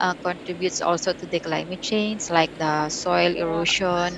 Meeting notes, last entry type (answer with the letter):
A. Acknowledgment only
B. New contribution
A